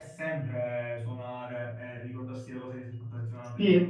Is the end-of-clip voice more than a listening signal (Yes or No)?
Yes